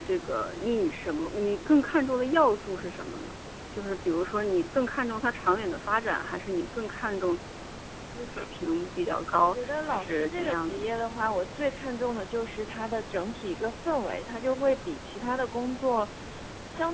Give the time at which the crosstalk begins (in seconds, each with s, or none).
9.4 s